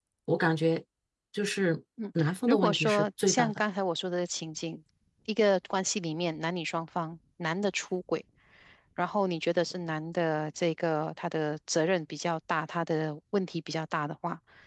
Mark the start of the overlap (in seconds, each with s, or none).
2.2 s